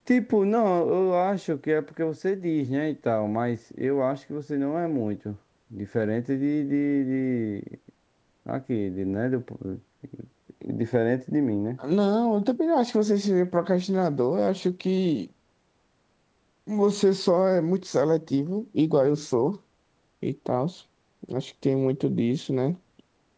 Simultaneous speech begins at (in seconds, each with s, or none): none